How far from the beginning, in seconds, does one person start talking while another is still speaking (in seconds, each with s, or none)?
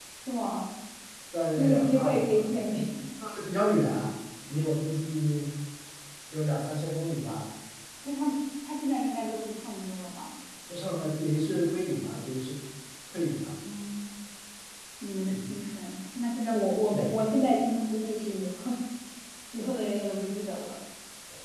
1.6 s